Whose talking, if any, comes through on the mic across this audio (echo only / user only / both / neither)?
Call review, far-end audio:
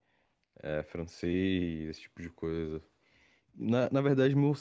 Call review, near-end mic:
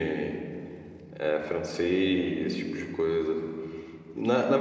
echo only